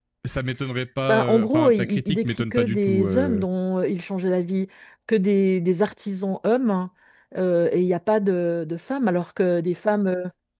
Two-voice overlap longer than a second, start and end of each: 1.1-3.5

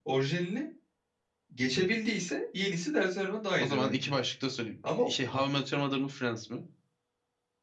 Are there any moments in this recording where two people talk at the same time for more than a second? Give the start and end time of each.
none

